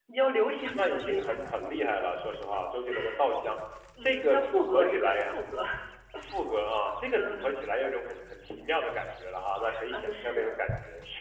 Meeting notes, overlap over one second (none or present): present